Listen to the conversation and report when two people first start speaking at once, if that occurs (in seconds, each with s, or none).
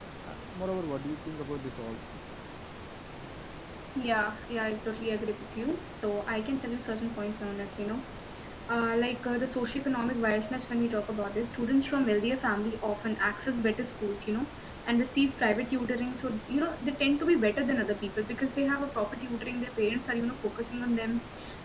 none